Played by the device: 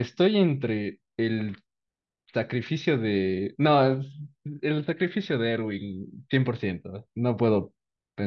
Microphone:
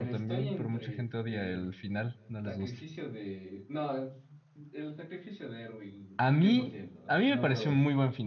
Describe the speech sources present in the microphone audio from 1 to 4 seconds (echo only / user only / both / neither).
both